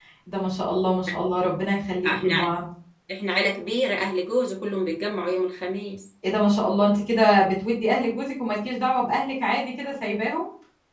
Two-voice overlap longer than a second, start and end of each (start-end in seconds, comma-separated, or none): none